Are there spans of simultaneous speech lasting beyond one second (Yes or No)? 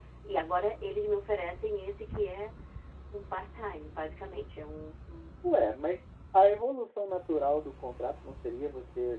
No